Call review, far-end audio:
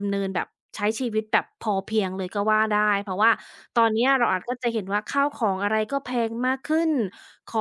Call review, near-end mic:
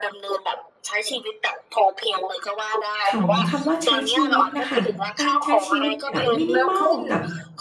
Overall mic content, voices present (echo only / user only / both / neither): both